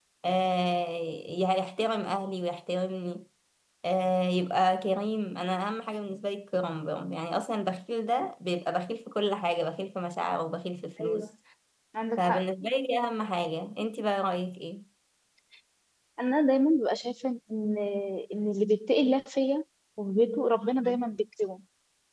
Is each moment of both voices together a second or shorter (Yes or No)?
Yes